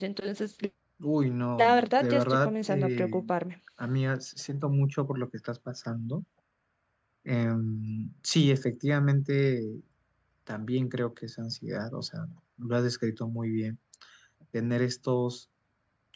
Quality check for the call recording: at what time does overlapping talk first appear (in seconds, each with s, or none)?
1.6 s